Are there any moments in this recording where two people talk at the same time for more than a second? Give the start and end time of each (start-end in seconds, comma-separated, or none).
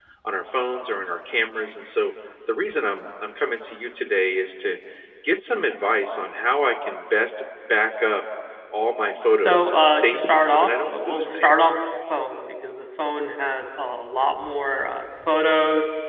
9.3-11.7